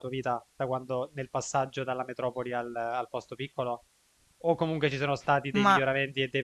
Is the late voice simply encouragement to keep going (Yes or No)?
Yes